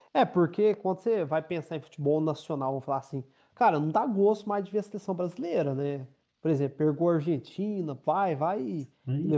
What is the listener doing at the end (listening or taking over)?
listening